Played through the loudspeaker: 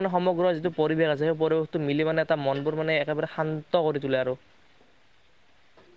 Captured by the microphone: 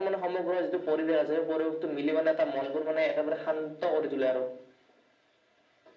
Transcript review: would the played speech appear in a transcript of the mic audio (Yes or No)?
Yes